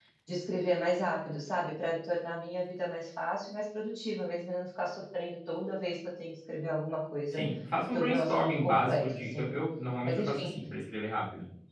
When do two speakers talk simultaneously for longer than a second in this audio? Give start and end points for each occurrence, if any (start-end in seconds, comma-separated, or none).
7.9-9.5